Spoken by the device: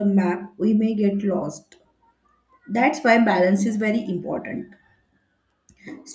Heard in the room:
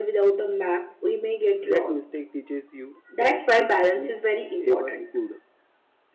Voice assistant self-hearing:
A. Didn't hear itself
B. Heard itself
B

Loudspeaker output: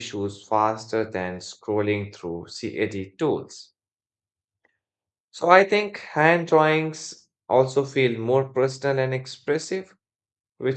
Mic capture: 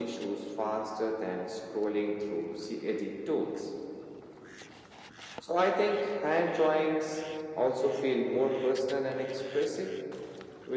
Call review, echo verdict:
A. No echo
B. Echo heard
B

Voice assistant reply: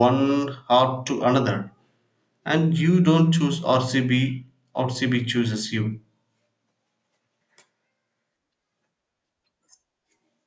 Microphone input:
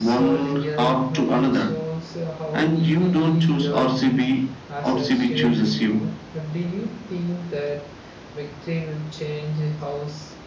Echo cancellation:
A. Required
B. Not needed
A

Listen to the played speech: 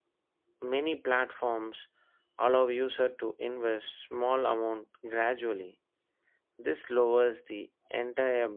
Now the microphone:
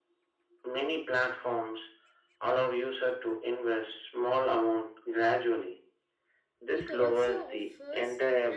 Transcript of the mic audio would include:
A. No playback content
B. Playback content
B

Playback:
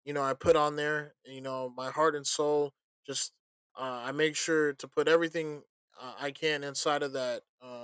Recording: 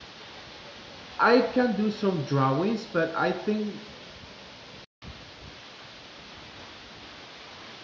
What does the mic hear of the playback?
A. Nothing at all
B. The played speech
A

